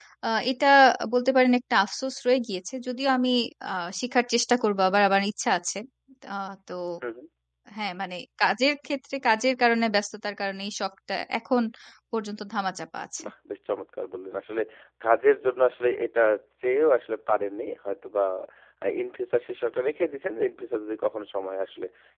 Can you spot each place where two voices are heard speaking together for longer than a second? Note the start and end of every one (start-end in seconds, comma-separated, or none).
none